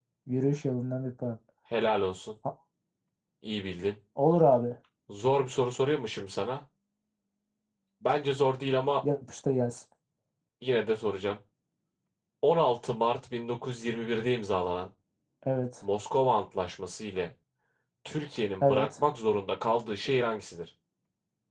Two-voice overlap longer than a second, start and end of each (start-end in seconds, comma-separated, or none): none